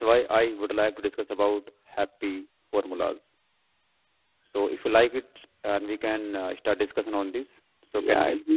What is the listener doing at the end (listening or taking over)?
taking over